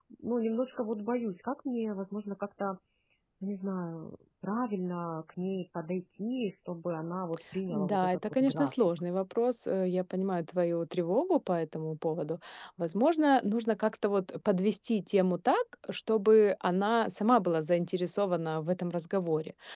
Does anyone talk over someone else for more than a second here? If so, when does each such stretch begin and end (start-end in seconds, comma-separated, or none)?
7.7-8.9